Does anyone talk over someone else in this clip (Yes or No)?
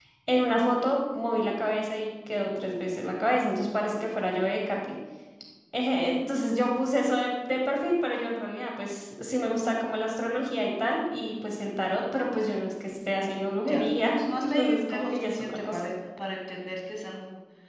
Yes